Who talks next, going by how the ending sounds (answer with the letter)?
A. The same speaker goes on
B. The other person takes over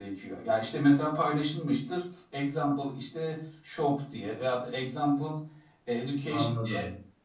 A